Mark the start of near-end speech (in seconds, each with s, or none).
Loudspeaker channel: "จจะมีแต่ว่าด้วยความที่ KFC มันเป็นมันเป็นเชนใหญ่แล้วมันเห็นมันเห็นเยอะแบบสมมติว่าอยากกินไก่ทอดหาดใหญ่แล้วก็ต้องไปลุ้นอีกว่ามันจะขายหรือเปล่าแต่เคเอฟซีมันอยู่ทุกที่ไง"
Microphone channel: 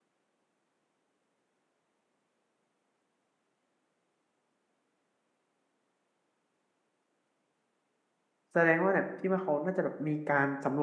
8.5 s